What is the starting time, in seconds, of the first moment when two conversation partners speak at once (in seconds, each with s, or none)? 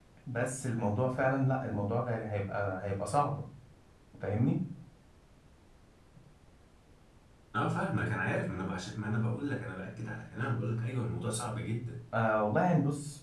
none